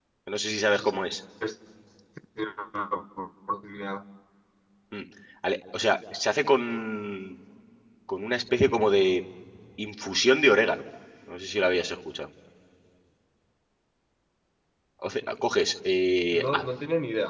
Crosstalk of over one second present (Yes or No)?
No